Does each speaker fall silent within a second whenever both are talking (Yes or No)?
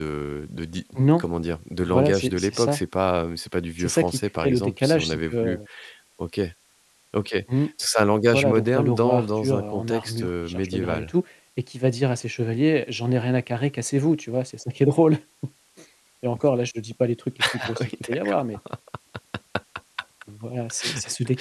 No